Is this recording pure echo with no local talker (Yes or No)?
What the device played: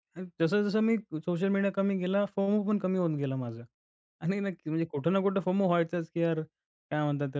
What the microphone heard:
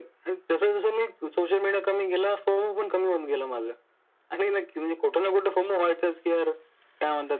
Yes